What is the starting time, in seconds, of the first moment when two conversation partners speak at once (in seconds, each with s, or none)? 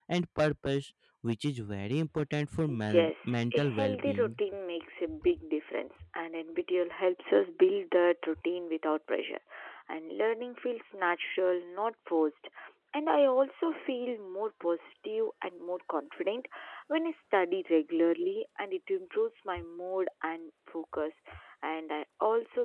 2.9 s